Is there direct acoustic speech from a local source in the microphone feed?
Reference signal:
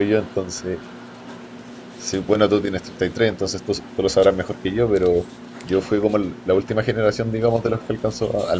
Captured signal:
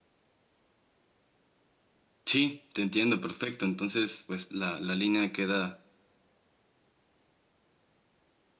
Yes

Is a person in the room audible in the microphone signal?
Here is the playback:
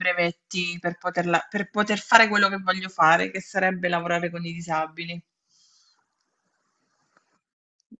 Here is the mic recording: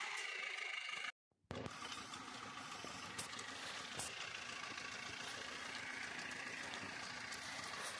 No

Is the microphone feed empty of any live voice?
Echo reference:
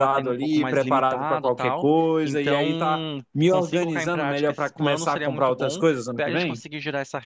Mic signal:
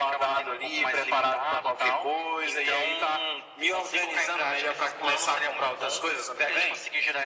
Yes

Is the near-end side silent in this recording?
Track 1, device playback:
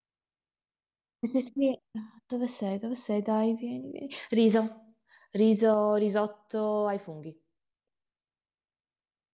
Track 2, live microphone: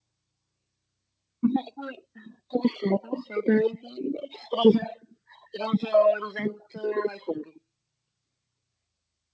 Yes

